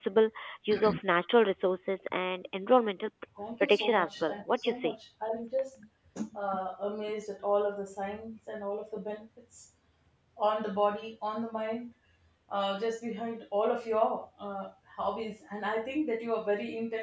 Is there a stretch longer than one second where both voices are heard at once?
Yes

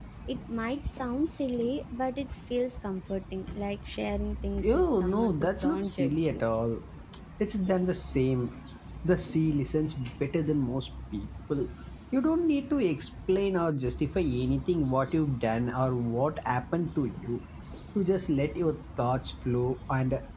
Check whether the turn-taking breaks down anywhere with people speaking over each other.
Yes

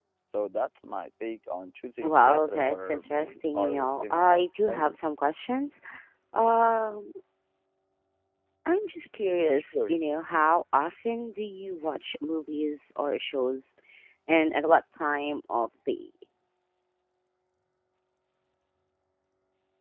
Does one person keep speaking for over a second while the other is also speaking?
Yes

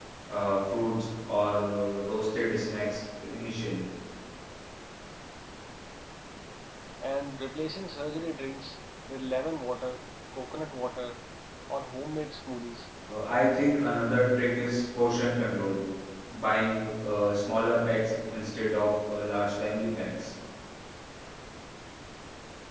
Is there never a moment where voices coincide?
Yes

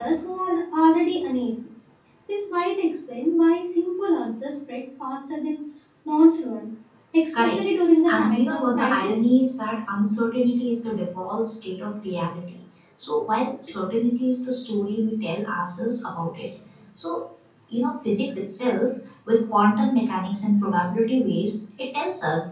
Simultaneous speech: Yes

